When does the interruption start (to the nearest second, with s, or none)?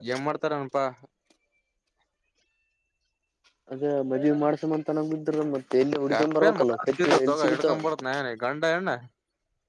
6 s